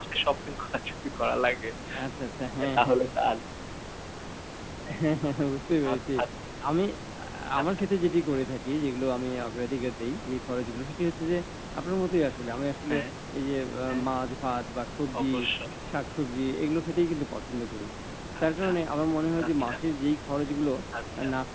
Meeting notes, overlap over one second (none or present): none